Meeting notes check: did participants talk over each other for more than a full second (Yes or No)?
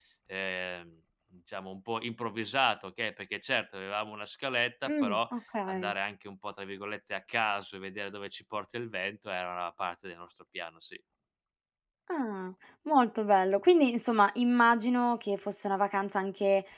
No